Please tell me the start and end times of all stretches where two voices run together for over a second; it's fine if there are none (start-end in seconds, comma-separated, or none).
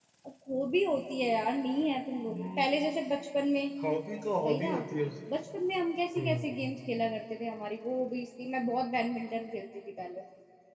none